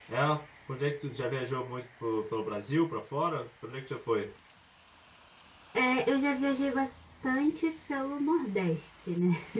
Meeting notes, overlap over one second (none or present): none